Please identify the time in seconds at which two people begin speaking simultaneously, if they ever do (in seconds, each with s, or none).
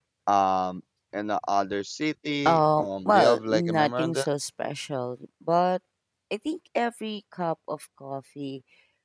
2.5 s